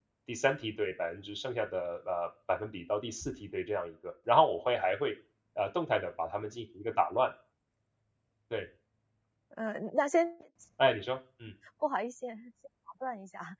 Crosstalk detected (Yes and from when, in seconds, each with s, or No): No